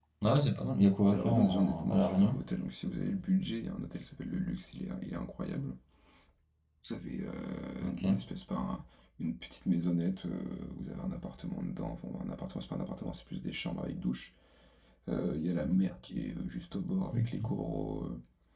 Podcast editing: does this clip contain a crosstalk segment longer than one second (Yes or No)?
Yes